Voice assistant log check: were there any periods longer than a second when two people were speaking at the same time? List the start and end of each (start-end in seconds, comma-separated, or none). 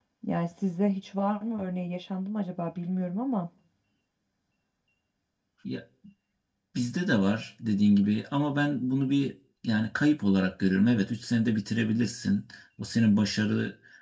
none